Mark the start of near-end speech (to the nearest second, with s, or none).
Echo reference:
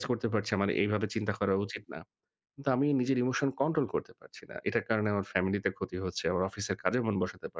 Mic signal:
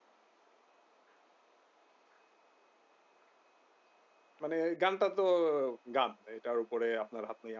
4 s